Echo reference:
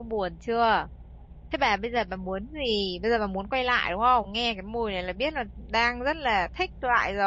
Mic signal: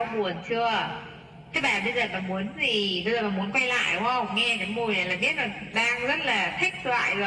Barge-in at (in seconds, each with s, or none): none